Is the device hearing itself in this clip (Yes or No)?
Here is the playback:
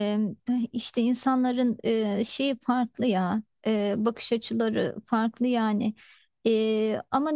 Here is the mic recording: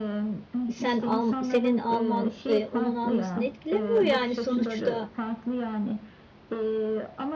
Yes